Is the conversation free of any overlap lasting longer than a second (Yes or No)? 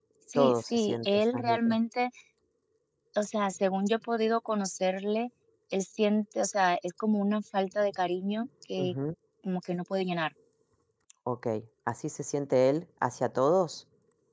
No